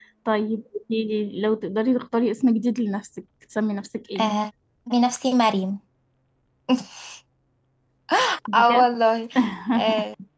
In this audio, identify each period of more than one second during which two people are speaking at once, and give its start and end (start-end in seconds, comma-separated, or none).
none